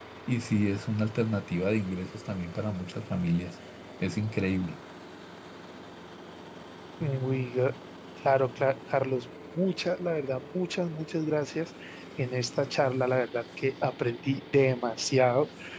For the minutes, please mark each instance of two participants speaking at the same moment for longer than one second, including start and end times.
none

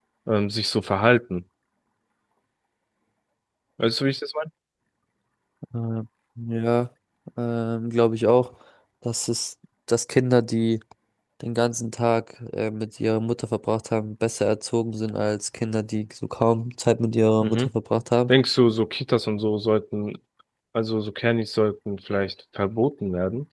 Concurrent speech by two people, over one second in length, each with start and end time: none

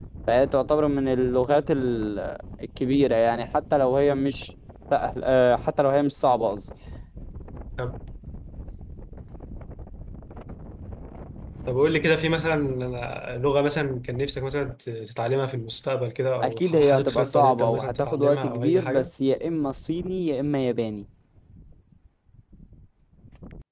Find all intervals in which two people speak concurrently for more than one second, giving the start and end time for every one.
16.4-19.1

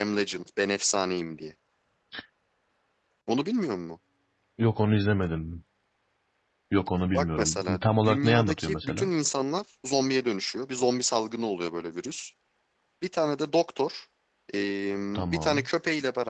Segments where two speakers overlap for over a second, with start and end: 7.1-9.1

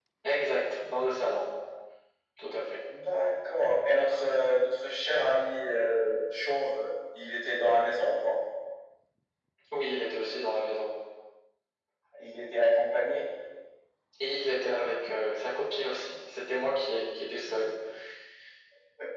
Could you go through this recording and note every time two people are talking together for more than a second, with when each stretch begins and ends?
none

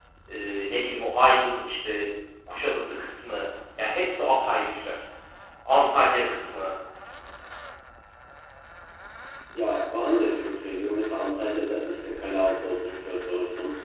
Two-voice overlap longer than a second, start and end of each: none

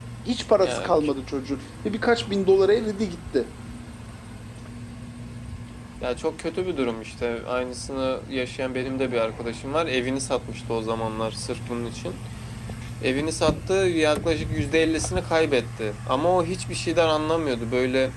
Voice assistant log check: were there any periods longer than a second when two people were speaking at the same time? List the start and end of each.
none

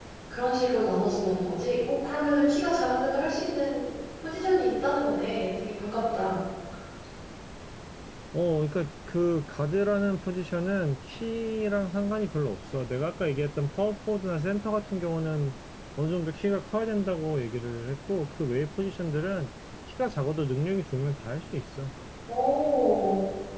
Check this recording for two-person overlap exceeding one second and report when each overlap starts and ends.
none

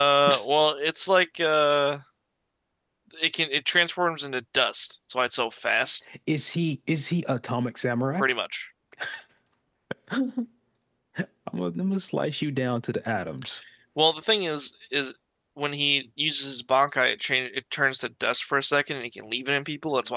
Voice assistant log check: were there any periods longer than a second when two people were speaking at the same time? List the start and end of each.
none

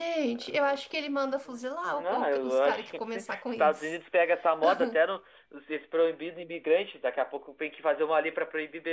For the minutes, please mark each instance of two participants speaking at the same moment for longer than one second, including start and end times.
1.9-4.0

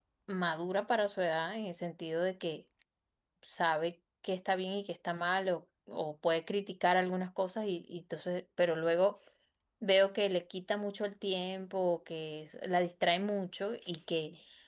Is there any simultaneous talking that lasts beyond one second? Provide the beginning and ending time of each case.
none

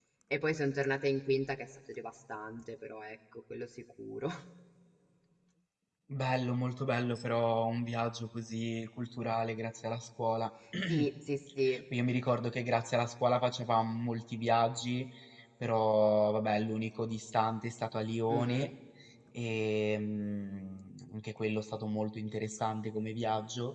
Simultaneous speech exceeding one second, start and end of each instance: none

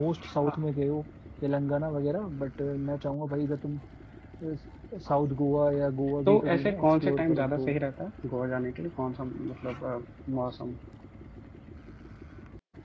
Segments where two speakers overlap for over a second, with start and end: 6.3-7.7

